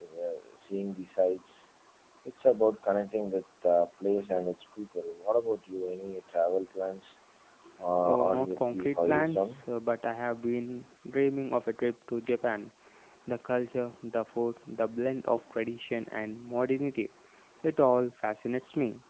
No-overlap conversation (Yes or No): No